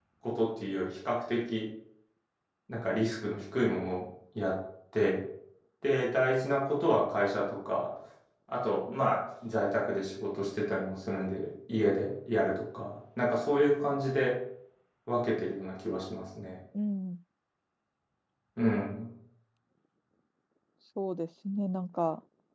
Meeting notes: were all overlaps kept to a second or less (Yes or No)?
Yes